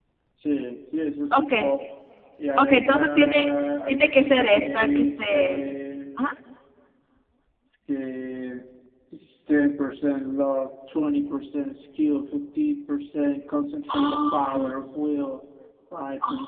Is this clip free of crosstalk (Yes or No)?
No